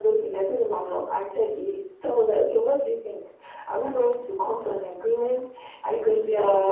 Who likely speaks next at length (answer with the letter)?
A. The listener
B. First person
B